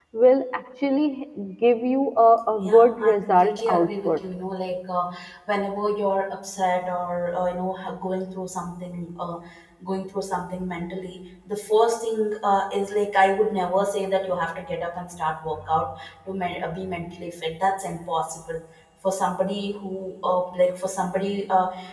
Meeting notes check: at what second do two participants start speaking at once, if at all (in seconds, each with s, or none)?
2.6 s